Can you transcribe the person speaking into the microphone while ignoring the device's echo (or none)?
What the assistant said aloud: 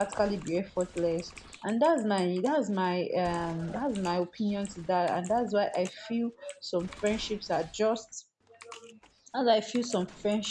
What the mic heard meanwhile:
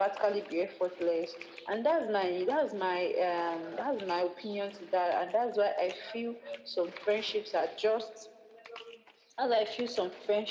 none